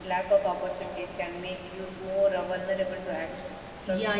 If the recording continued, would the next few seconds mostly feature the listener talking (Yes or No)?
Yes